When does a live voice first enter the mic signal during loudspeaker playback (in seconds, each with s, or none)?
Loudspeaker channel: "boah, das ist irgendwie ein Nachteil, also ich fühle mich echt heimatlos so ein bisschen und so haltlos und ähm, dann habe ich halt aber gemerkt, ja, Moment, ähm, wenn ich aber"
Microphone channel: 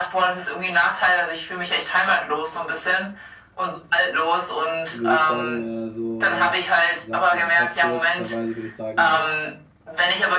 4.9 s